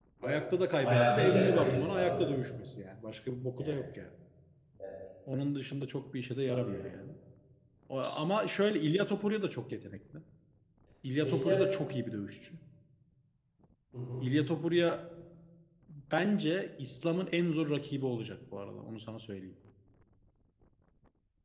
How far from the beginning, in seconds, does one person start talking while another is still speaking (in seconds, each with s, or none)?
0.9 s